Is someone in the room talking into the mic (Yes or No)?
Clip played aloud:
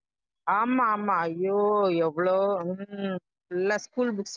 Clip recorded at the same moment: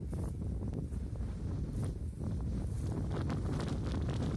No